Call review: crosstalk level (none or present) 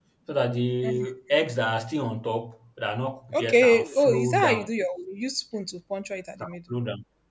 present